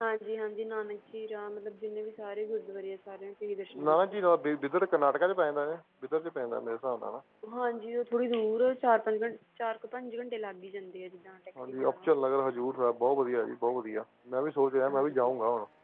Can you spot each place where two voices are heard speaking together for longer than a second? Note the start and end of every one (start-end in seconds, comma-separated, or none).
none